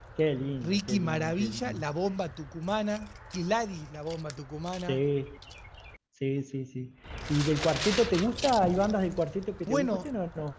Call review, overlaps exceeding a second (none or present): present